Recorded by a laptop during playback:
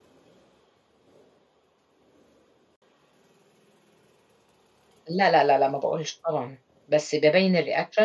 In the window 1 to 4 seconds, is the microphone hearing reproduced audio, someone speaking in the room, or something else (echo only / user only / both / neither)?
neither